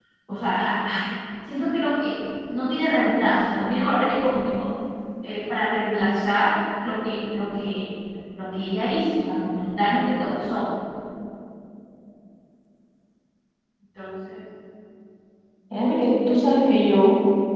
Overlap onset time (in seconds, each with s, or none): none